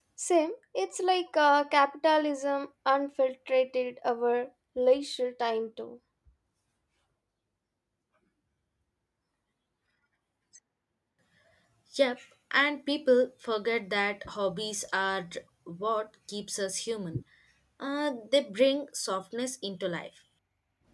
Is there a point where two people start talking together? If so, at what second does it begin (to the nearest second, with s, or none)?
none